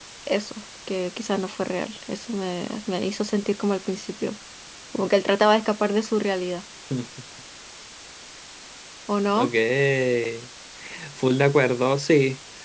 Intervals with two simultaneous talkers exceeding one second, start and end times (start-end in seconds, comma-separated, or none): none